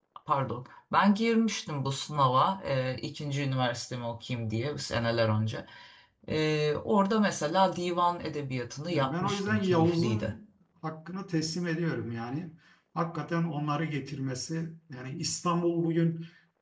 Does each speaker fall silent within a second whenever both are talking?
No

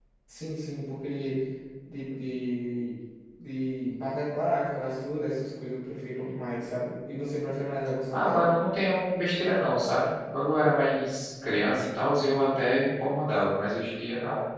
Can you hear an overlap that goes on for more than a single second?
No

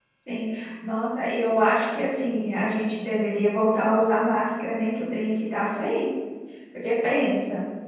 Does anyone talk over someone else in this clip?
No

